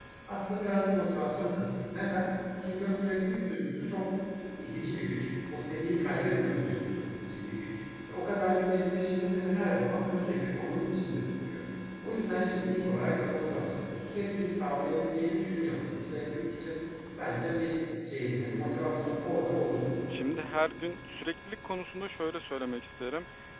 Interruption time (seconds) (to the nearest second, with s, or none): none